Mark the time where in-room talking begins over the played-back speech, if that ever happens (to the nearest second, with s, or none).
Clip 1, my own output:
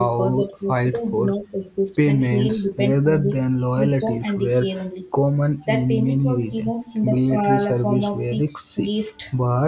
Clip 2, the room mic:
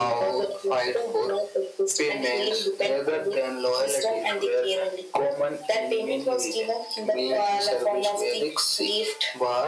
none